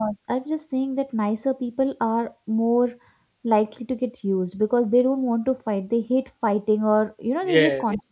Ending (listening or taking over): taking over